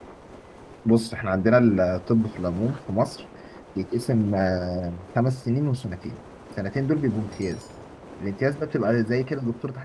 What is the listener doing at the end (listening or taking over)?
listening